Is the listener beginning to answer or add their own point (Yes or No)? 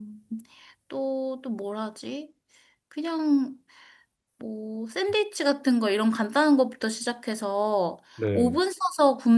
No